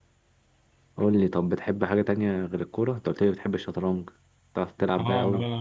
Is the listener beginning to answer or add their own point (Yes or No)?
Yes